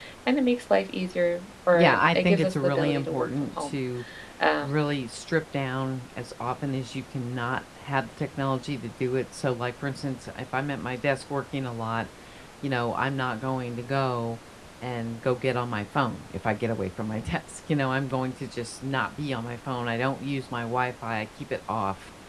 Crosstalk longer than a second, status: present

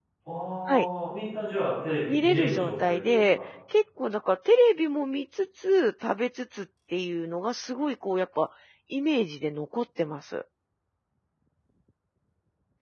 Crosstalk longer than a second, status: present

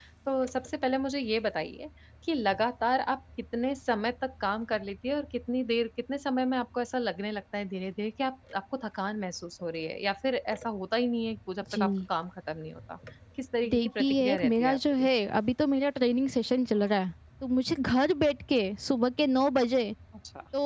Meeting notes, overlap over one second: present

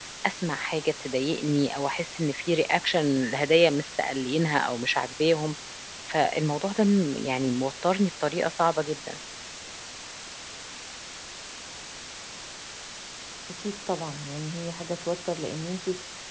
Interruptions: none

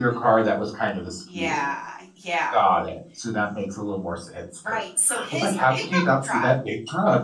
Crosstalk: present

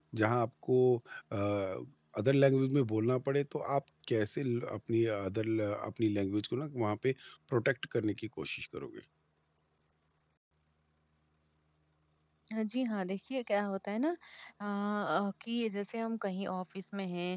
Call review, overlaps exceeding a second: none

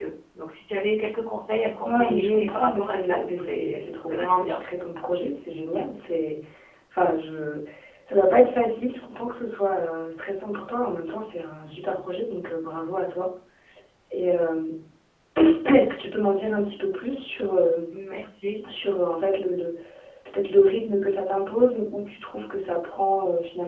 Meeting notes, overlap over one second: present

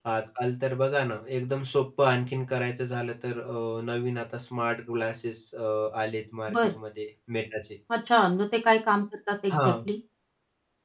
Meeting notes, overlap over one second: none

